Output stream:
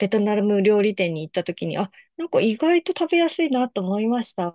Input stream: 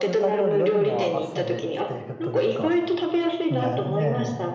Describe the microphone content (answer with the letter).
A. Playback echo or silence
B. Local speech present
B